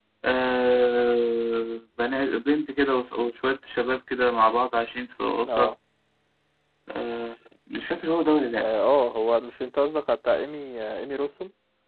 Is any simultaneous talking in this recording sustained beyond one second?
No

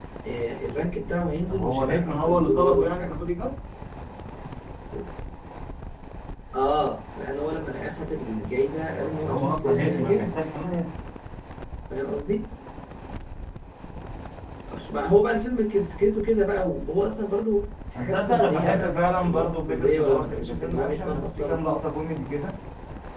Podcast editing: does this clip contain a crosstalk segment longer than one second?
Yes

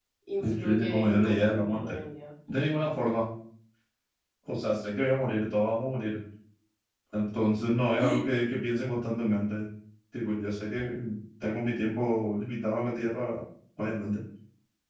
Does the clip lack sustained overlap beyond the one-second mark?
No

